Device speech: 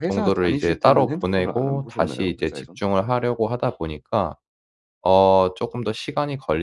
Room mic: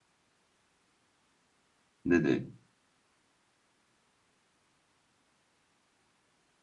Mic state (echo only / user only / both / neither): user only